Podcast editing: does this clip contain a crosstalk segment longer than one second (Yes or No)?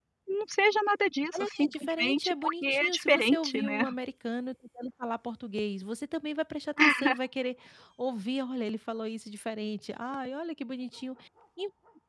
Yes